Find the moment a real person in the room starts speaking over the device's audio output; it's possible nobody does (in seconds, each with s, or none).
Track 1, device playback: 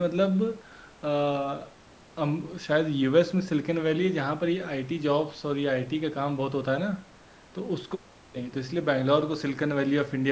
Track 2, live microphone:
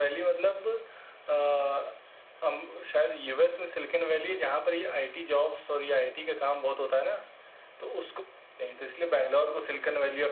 none